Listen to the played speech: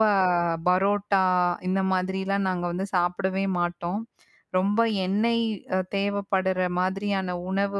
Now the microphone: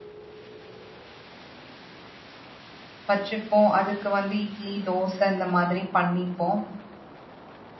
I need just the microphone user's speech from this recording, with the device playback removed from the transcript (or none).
வச்சுப்போம். அதுக்கு வந்து இட்லி, தோசை இந்த மாதிரி பண்ணிப்போம்.